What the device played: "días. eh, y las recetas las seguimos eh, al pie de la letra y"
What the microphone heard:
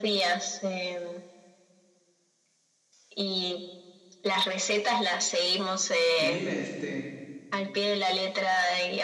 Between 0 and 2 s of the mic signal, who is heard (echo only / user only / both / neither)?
echo only